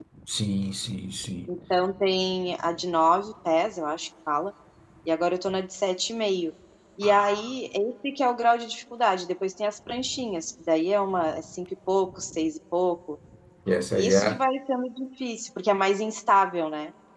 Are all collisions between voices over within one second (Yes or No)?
Yes